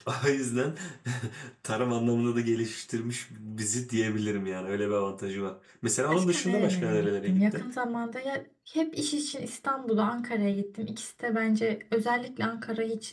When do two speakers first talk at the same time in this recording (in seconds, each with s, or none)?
6.1 s